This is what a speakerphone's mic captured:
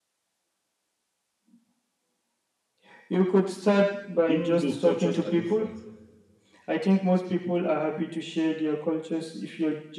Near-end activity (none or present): present